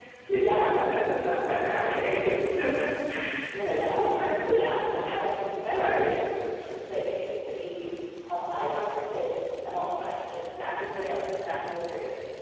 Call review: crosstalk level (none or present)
present